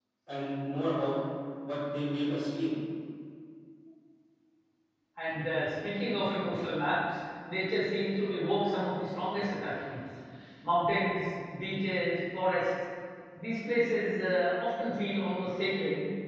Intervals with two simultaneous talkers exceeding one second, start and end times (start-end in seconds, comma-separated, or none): none